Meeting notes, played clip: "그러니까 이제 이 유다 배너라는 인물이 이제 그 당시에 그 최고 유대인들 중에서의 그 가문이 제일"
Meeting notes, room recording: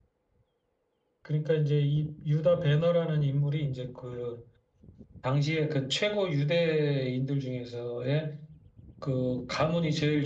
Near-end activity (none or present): none